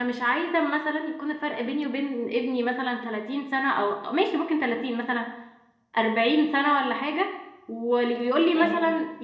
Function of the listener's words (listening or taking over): listening